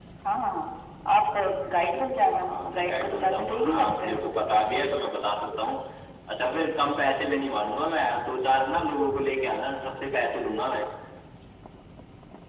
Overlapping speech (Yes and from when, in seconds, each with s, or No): Yes, from 2.3 s